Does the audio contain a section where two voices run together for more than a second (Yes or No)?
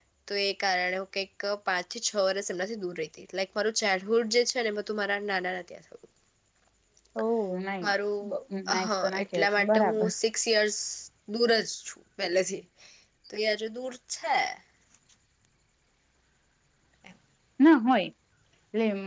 Yes